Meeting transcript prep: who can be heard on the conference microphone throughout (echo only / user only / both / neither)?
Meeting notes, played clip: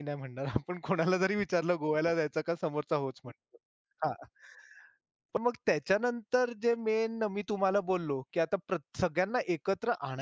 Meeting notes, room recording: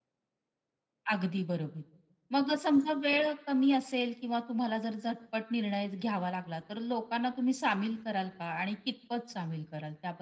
user only